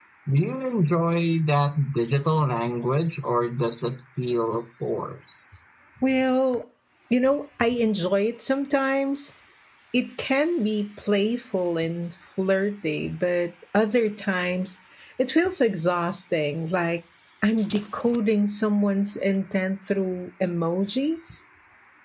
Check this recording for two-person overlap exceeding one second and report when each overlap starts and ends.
none

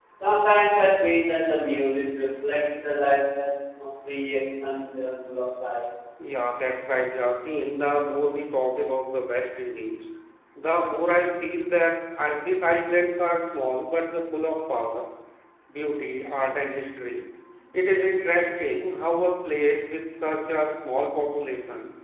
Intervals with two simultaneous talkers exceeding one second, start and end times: none

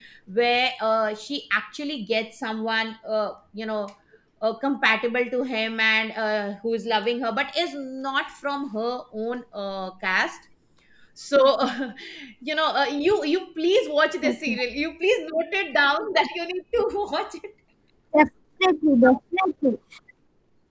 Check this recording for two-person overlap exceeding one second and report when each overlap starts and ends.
none

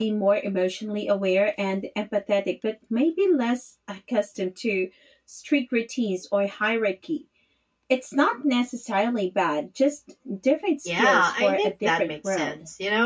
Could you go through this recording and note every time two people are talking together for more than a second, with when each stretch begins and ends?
11.0-12.5

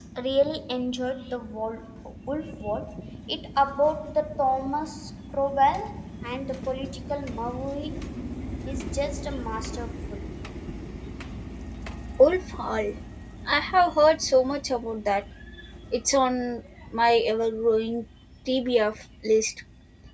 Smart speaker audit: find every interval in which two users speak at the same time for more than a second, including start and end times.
none

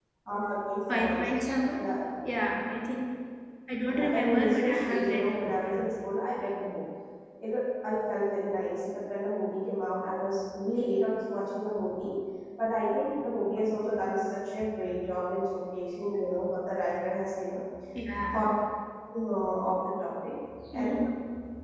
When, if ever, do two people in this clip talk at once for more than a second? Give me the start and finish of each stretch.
3.9-5.9

